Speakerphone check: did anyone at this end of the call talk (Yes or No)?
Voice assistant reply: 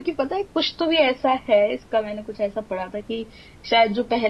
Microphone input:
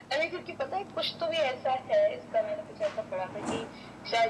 No